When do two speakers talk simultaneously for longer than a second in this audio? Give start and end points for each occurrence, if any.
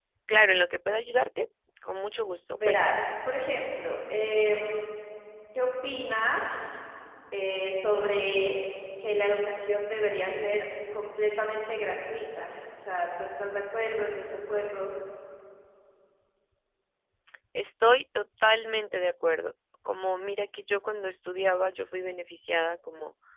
none

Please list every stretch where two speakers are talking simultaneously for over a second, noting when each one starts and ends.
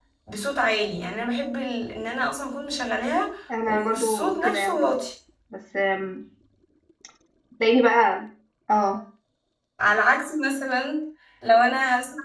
3.7-4.9

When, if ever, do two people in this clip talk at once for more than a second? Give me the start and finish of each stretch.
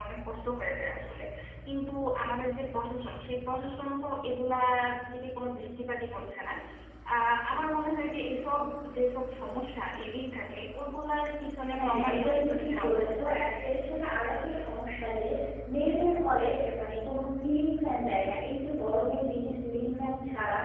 11.8-13.6

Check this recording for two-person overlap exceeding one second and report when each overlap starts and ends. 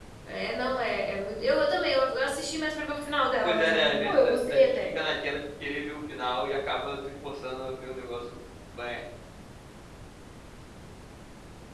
3.4-4.9

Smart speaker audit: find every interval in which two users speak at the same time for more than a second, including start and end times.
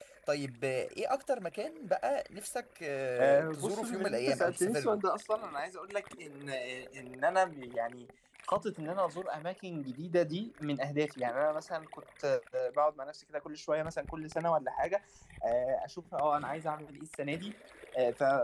3.2-5.0

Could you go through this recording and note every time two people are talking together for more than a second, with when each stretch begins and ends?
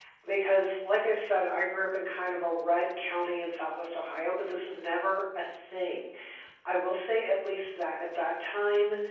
none

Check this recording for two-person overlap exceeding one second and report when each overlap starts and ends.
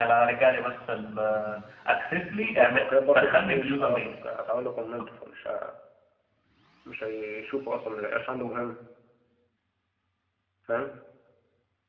2.4-4.1

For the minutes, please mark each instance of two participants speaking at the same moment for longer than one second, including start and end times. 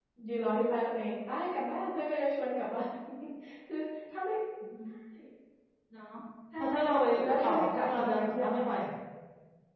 6.6-8.7

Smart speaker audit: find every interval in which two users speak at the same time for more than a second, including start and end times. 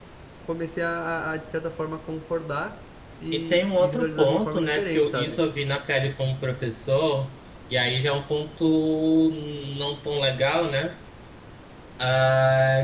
3.3-5.4

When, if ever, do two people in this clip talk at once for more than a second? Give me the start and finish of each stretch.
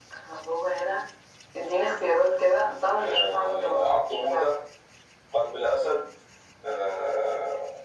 3.1-4.5

